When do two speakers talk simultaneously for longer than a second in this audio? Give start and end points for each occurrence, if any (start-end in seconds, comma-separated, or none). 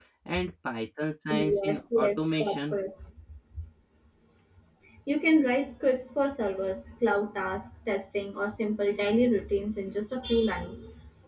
1.3-2.8